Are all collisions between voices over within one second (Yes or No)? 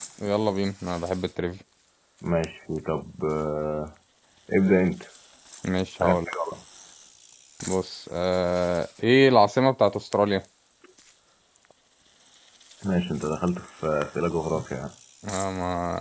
Yes